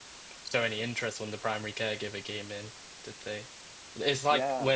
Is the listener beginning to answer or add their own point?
No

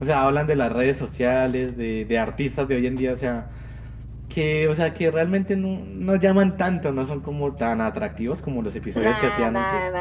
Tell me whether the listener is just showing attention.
No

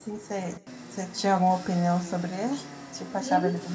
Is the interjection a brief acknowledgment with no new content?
No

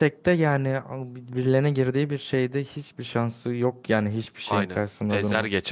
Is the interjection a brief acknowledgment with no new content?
No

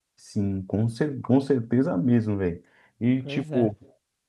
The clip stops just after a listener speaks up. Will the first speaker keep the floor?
Yes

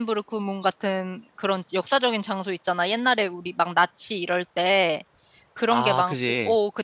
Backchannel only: Yes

